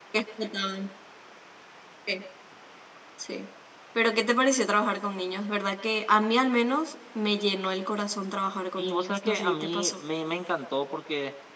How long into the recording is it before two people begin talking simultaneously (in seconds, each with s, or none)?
8.8 s